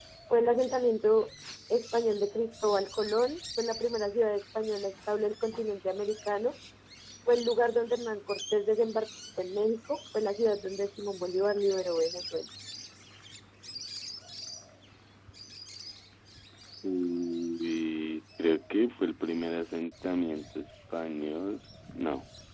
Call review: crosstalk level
none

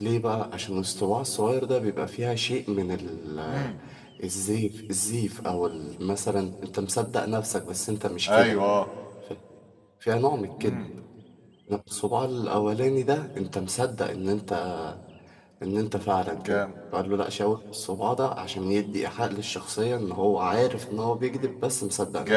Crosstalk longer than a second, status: none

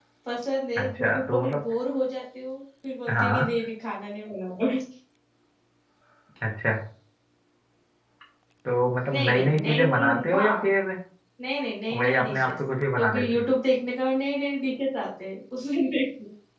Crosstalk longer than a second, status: present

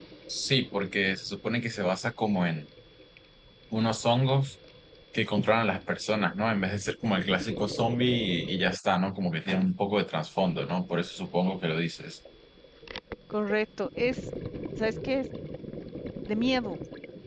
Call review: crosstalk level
none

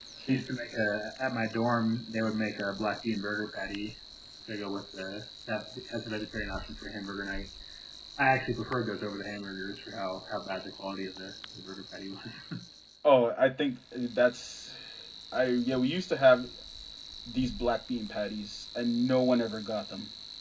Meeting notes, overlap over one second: none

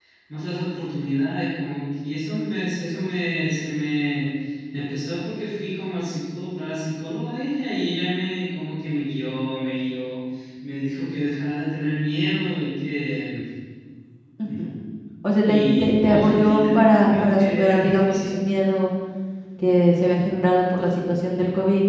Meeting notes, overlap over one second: present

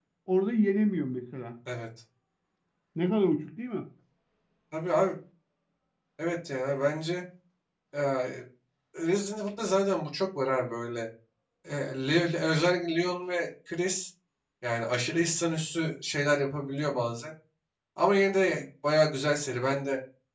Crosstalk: none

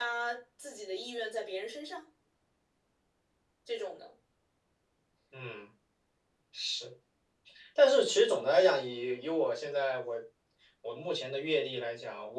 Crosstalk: none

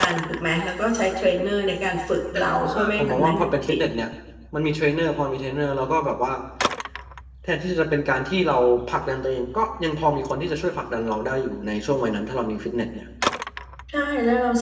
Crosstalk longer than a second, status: present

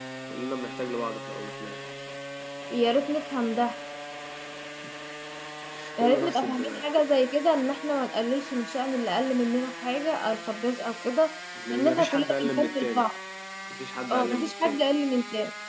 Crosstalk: present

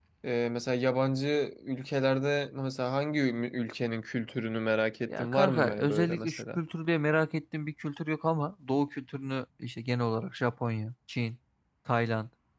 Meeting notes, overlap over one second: present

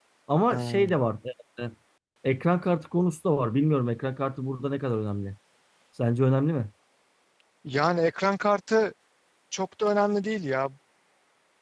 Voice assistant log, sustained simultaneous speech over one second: none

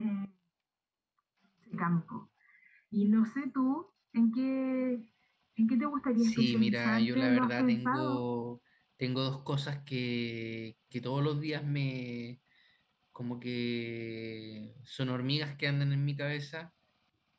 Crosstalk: present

